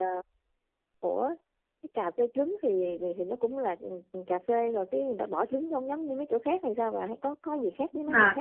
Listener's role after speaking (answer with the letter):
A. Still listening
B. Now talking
B